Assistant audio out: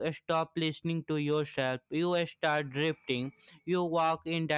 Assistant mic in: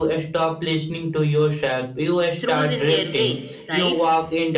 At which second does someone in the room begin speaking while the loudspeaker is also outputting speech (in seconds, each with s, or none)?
2.4 s